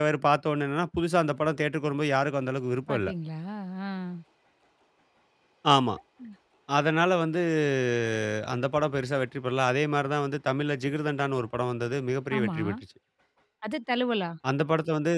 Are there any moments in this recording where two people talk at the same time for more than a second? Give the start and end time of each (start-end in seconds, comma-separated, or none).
none